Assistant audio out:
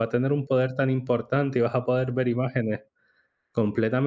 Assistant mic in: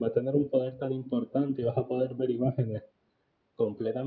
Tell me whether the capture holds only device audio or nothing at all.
Yes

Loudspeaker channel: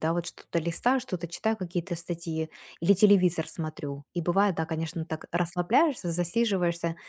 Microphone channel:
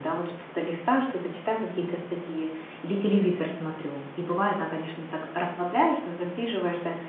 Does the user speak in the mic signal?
No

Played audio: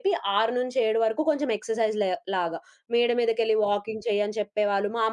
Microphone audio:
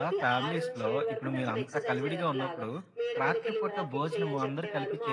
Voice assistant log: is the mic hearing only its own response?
No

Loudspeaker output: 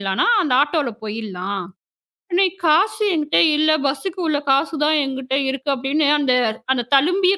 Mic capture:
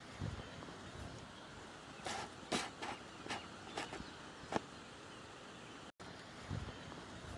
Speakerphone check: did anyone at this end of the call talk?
No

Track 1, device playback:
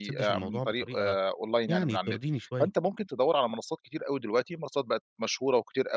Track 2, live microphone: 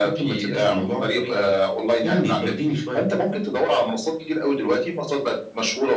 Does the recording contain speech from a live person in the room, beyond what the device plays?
No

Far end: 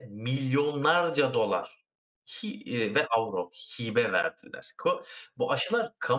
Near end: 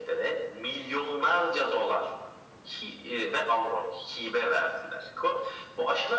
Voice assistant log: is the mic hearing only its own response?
Yes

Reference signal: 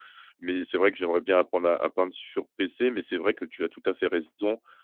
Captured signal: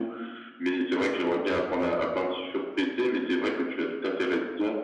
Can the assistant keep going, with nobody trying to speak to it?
Yes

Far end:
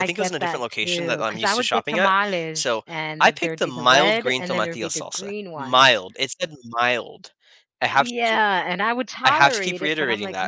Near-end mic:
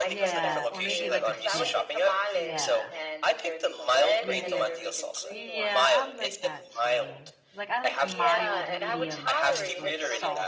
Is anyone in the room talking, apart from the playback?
Yes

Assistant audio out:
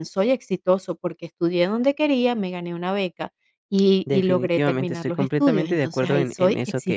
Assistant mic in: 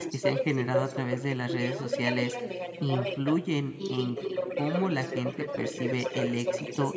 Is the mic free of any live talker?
No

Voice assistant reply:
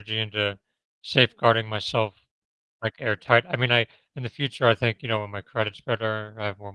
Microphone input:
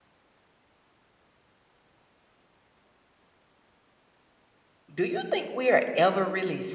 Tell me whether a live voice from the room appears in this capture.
Yes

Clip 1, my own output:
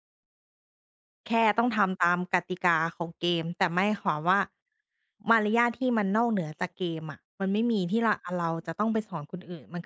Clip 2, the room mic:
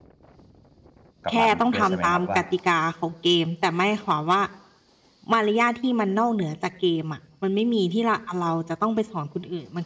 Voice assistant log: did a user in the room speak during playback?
Yes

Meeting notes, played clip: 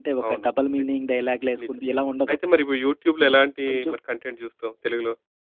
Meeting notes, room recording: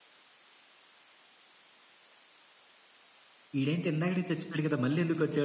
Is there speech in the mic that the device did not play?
Yes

